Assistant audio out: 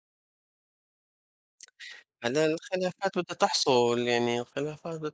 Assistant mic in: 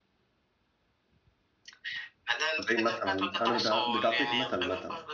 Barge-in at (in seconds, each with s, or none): 2.6 s